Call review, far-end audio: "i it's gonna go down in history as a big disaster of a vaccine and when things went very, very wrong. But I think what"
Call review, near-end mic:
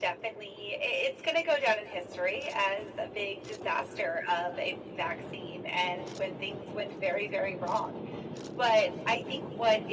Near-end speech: none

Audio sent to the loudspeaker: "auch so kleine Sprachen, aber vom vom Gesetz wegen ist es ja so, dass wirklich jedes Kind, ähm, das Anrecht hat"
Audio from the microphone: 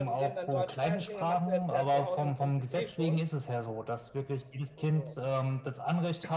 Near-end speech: present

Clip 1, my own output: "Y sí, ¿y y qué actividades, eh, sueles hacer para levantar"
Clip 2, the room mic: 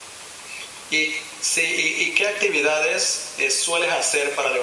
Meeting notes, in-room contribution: none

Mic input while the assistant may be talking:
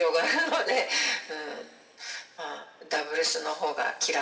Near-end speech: none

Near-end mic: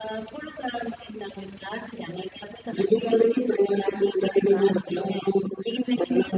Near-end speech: none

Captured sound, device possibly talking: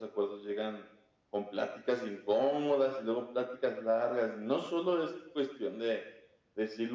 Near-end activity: none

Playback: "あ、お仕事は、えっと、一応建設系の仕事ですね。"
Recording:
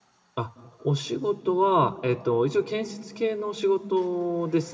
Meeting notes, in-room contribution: none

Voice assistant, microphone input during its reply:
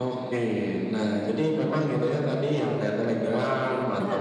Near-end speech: present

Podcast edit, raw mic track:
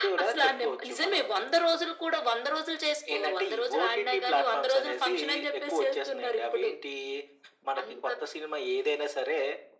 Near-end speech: none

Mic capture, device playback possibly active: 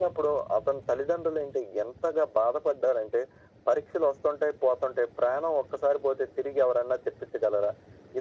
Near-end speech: none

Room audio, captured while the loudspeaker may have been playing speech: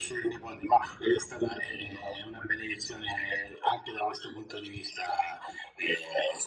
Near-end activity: none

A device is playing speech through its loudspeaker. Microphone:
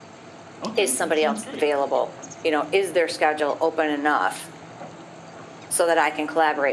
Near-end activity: present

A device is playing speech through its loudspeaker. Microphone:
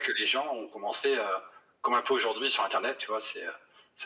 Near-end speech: none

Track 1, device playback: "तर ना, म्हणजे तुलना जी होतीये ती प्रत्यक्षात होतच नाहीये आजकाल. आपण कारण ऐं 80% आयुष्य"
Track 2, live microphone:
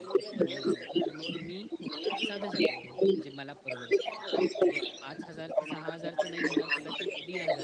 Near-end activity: present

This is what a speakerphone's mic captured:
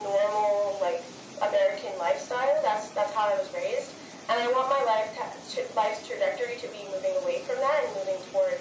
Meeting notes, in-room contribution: none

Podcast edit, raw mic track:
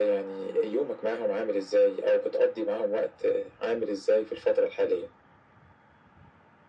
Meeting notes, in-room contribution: none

